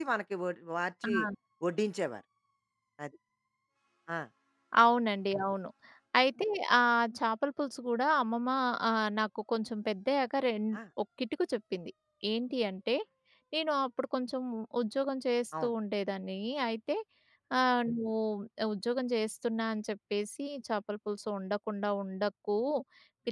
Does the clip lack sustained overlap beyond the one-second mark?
Yes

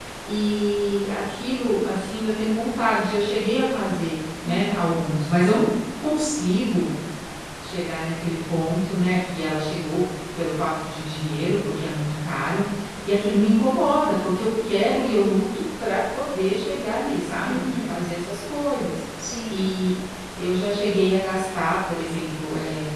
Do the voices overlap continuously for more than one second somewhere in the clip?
No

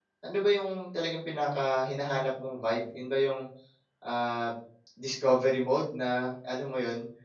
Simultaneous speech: No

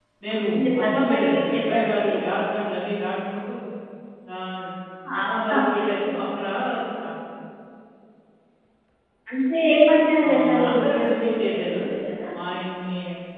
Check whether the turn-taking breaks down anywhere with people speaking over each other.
Yes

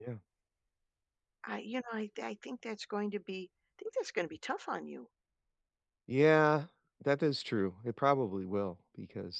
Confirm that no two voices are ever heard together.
Yes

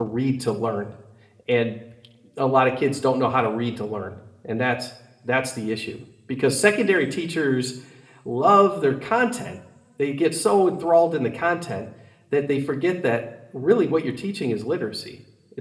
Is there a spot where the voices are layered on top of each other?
No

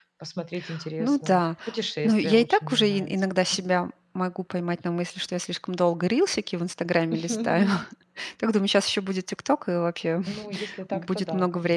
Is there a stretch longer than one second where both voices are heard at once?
Yes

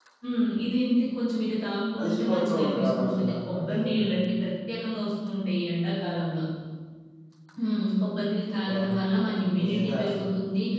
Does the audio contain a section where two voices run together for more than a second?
Yes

